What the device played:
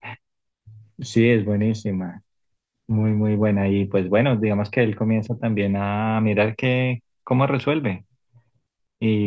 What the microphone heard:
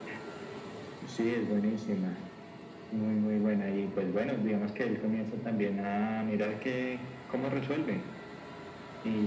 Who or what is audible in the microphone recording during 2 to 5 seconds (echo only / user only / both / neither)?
echo only